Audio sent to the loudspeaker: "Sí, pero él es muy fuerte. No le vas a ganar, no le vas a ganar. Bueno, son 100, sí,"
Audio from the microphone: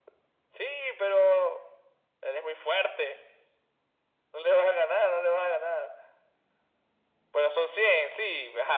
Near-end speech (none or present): none